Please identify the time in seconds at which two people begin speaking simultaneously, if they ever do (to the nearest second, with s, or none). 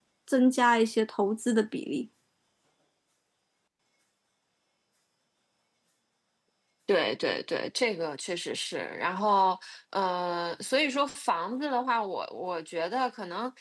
none